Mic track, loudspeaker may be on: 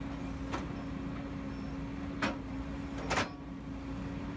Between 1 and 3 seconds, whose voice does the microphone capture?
neither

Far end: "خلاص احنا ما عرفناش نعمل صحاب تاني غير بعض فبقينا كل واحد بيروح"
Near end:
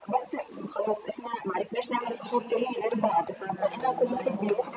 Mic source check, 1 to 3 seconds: both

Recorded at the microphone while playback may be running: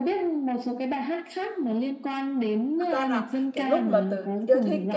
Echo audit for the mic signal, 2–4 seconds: both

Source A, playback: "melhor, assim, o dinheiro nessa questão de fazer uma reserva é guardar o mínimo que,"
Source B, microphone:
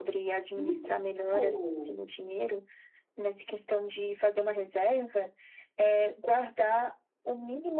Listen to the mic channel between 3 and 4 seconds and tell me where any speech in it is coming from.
echo only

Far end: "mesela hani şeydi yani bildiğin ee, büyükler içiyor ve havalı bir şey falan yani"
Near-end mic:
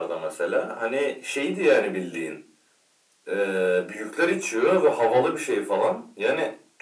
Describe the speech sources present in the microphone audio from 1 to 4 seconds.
echo only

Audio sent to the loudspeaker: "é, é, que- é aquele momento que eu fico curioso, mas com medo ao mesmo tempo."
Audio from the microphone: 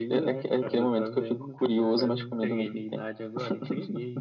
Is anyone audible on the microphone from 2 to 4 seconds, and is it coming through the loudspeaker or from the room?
both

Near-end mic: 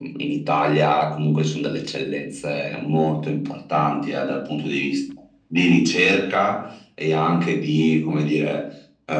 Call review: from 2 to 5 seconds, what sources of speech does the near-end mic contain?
echo only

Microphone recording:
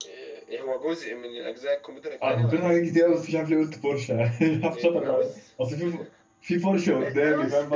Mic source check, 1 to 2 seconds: echo only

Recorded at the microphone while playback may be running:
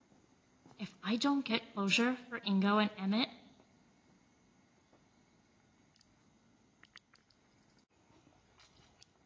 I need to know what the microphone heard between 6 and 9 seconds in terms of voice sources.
neither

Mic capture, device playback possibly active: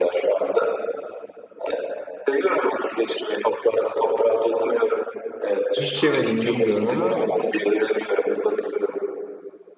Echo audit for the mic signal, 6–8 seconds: both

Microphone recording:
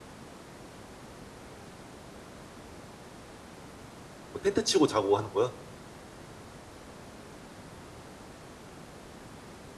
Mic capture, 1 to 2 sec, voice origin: neither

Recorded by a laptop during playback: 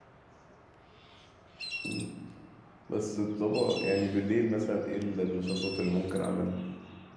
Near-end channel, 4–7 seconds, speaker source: user only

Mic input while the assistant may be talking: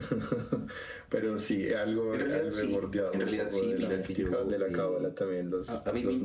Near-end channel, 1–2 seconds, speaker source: echo only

